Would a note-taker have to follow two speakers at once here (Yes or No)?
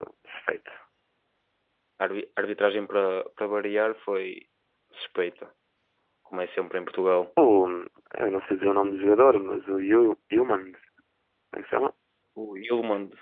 No